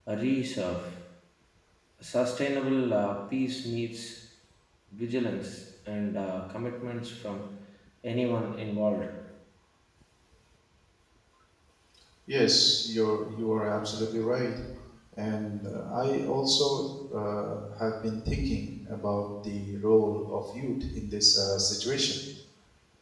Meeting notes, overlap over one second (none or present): none